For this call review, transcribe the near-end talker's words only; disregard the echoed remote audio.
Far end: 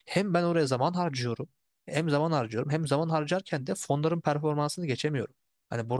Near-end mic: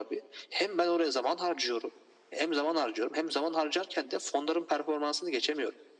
none

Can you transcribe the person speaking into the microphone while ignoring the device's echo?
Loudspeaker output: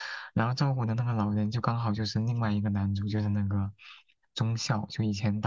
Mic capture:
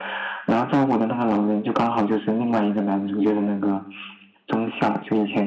none

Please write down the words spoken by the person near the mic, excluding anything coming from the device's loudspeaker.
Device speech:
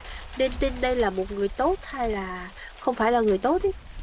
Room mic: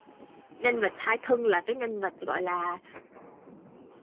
nhân vật hai thân là cái nhân vật gọi là

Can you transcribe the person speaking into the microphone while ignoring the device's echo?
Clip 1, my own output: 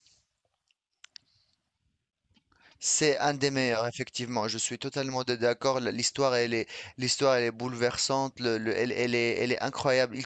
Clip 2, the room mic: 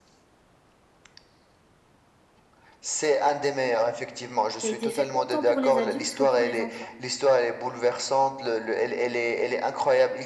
qui a été fait autant pour les adultes que pour les enfants,

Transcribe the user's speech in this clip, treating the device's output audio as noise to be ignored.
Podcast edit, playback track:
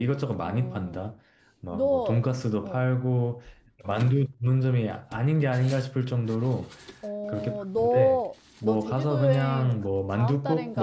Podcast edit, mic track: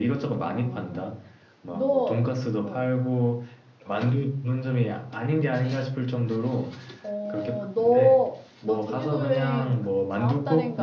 none

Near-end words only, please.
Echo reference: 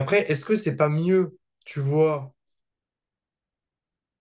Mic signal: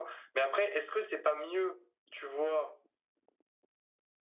none

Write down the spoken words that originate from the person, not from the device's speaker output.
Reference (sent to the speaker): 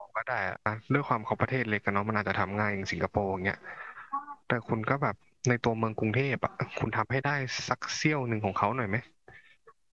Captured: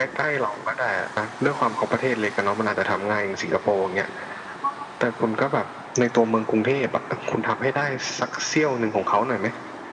none

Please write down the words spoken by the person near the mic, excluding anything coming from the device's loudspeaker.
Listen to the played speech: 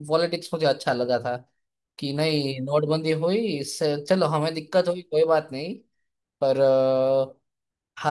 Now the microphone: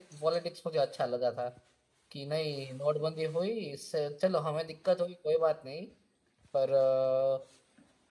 none

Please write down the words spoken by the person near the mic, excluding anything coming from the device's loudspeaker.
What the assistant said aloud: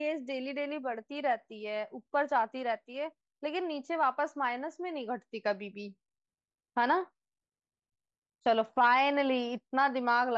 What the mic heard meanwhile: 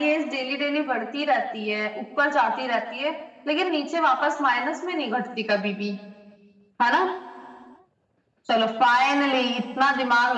none

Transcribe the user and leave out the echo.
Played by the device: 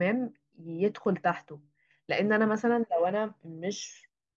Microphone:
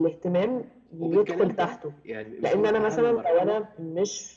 وبالكلام بقى يعني يعتبر اهم مرحله

